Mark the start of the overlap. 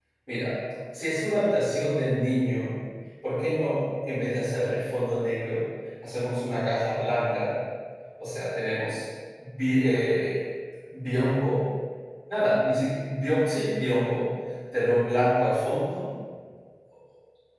none

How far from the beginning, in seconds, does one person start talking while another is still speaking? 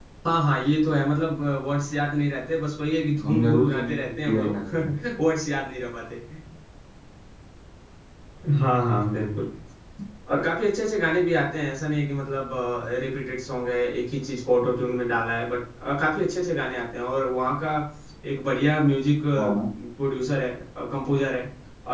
3.2 s

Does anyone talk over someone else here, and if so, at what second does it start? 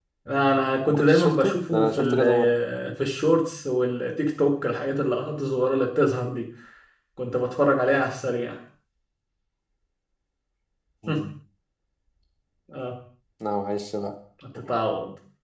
0.9 s

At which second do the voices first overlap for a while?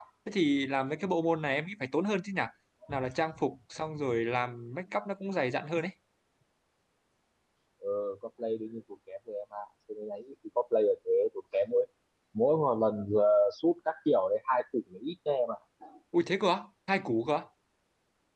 none

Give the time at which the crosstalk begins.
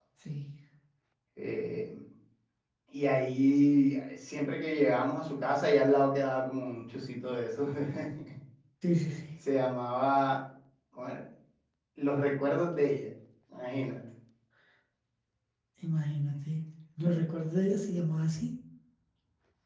none

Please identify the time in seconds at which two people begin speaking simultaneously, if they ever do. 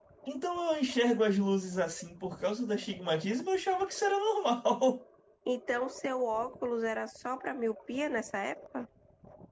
none

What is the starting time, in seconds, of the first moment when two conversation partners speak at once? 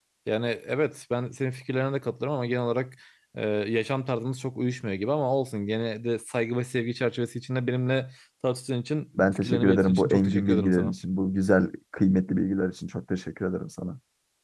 9.2 s

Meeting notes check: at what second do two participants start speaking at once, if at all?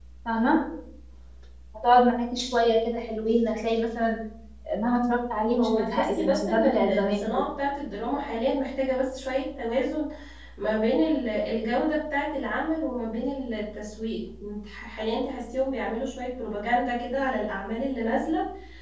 5.6 s

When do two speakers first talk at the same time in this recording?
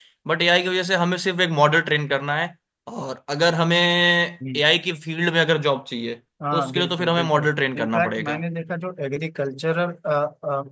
6.4 s

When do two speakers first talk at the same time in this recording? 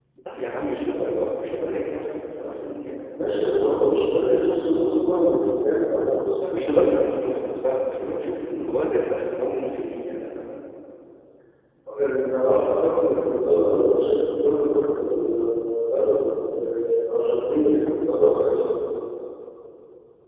none

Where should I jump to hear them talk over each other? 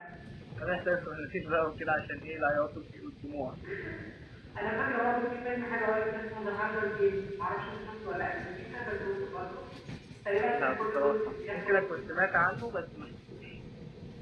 10.5 s

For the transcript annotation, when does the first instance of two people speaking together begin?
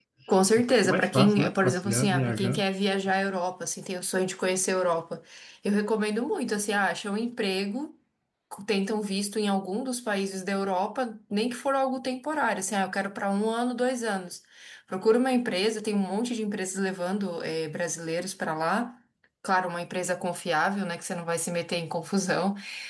0.8 s

